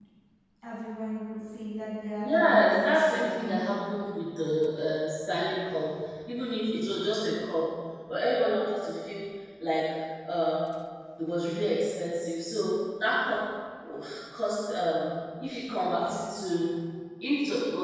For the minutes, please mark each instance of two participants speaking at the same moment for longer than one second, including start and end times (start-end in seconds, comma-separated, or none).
2.2-3.6